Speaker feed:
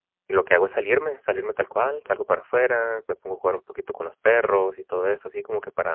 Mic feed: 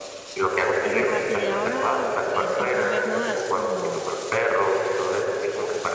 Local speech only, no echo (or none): esa parte de ahora, el el primer no, así como,